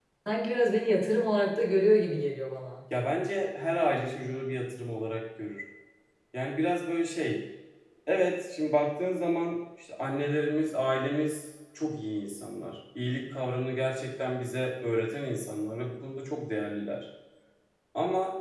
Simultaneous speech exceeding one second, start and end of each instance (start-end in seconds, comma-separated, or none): none